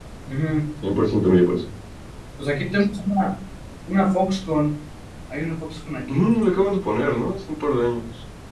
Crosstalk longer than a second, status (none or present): none